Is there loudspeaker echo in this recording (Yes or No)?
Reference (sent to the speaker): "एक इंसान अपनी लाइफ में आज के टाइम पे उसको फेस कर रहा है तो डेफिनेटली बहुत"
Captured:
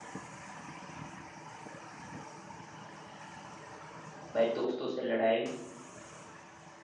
No